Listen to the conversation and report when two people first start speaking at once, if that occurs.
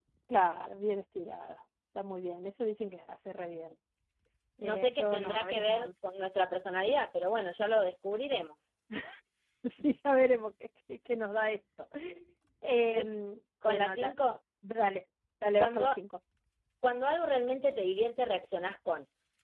4.6 s

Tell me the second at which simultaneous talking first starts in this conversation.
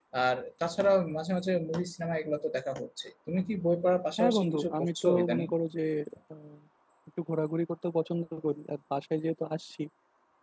4.2 s

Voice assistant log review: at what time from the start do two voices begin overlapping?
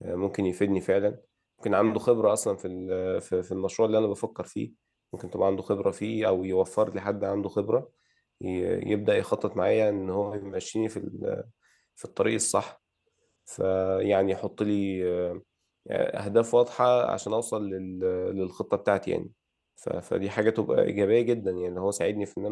none

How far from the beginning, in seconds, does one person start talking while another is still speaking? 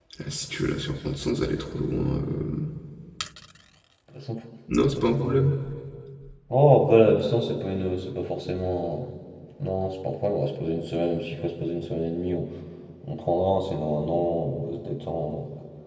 none

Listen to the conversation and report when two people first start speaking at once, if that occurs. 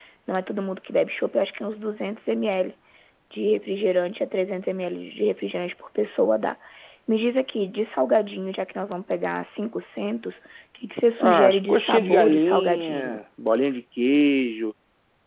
11.2 s

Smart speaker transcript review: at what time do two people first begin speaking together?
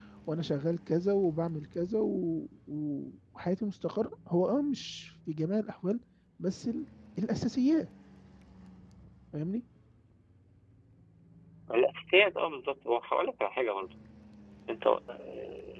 none

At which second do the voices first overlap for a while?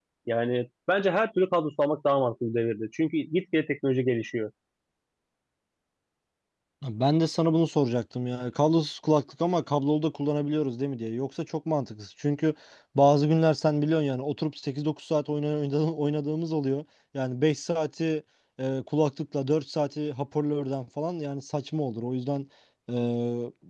none

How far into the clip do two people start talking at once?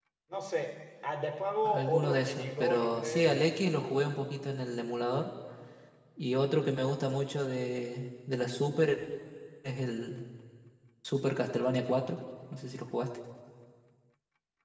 1.6 s

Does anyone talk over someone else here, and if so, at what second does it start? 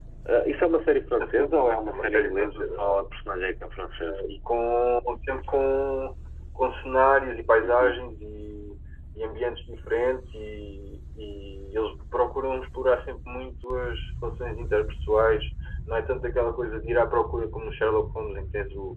1.2 s

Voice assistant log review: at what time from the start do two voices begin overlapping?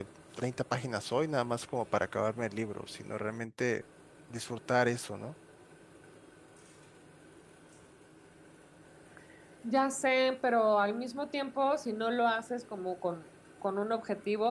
none

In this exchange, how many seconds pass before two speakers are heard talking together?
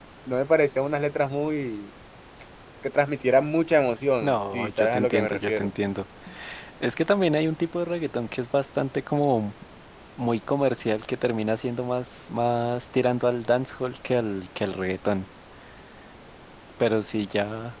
4.2 s

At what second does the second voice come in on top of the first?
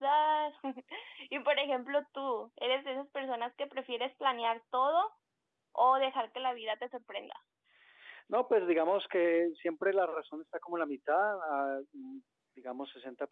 none

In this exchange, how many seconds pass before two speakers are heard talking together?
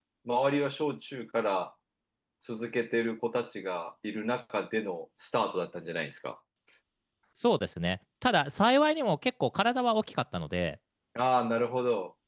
none

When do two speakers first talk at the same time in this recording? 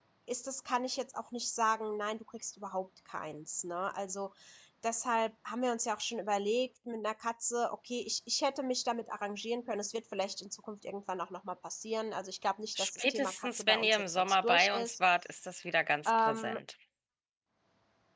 12.8 s

